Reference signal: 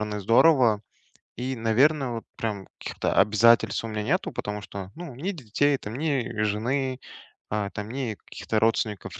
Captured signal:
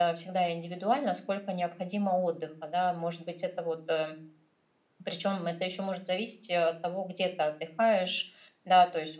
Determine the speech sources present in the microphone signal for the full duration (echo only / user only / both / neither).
user only